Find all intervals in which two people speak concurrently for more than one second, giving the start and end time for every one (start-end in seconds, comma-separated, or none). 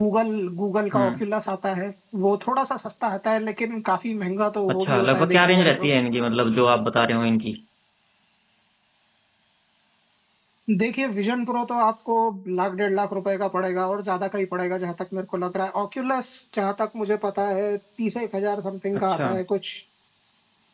4.7-5.9